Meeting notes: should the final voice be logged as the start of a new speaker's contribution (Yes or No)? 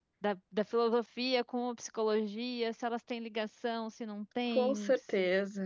Yes